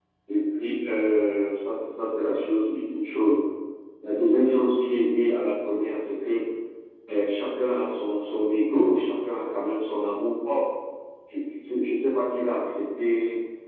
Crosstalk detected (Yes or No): No